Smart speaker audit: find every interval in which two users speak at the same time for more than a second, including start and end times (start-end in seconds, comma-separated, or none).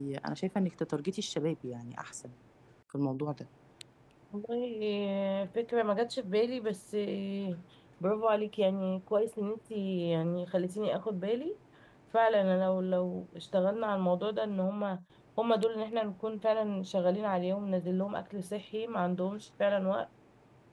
none